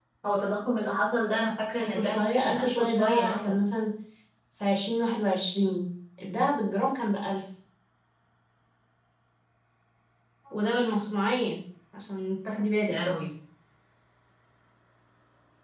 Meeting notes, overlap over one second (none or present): present